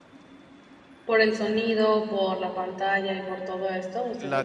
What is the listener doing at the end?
taking over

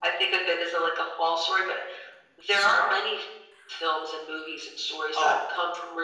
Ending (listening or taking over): listening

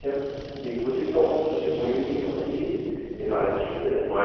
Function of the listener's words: taking over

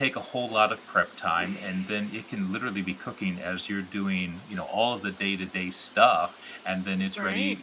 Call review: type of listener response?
listening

